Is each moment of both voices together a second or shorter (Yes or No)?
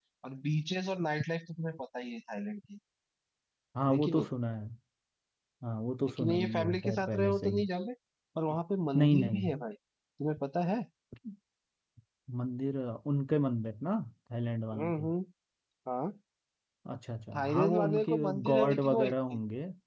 No